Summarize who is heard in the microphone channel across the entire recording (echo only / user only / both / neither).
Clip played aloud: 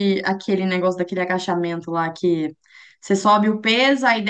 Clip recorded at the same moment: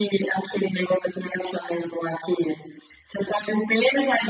echo only